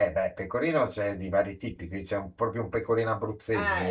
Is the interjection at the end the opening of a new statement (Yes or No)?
Yes